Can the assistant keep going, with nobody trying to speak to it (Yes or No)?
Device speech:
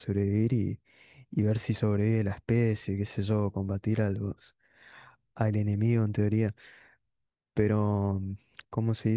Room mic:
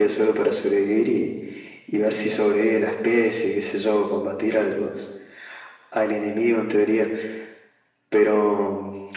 Yes